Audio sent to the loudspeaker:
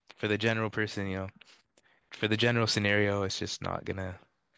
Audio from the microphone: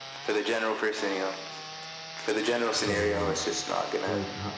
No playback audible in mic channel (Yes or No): No